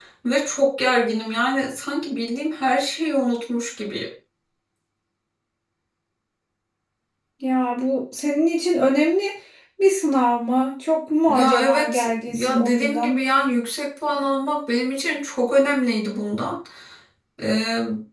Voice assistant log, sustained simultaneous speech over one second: present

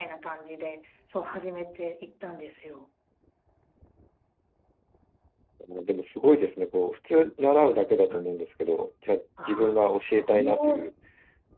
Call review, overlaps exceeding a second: present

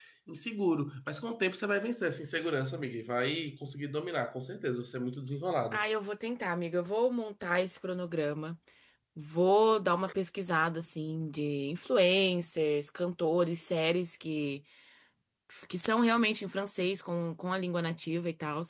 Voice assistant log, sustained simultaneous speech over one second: none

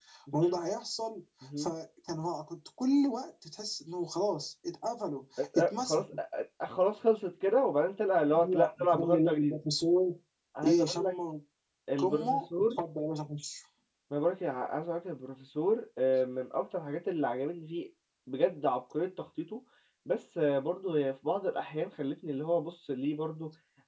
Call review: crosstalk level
present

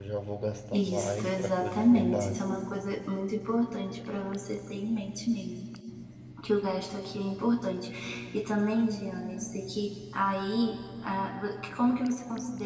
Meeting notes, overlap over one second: present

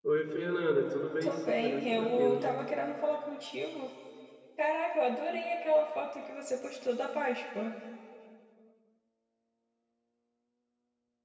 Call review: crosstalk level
present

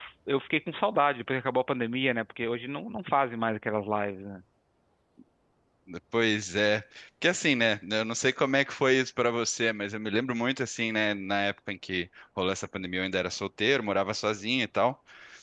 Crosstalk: none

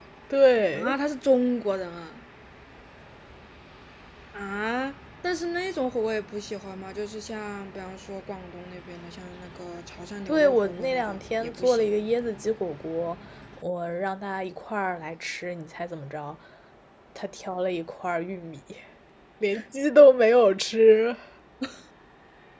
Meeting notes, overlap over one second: present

